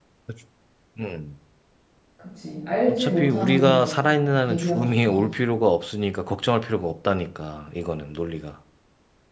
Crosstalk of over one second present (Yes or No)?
Yes